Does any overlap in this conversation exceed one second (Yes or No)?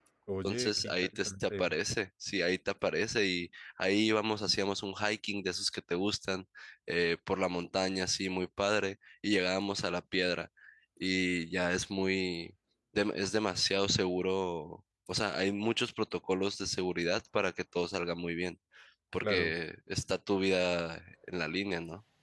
Yes